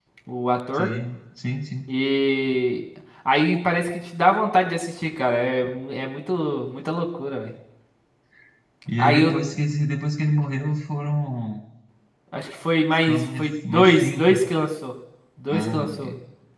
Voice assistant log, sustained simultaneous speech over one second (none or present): present